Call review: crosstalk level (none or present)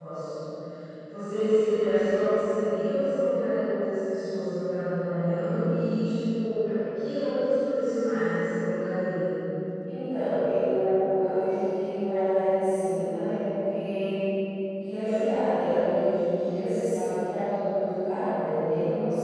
none